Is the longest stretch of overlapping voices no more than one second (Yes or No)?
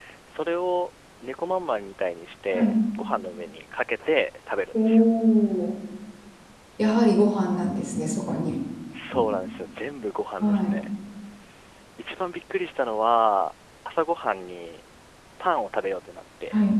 Yes